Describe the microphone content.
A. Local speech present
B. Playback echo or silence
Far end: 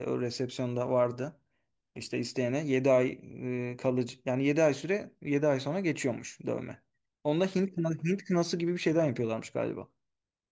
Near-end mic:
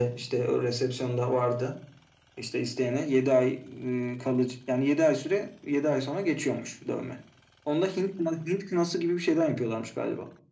B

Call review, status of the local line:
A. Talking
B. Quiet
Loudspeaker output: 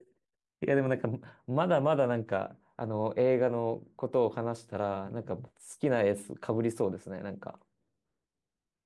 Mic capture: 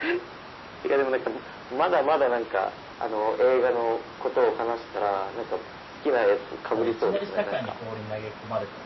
A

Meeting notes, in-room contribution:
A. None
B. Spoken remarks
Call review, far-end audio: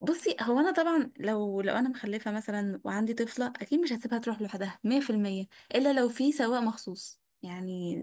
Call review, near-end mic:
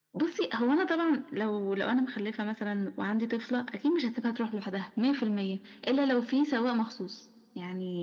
A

